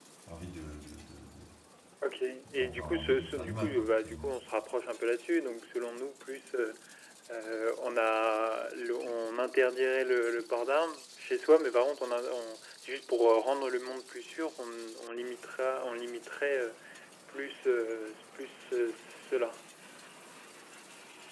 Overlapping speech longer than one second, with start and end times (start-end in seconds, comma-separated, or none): 2.6-4.3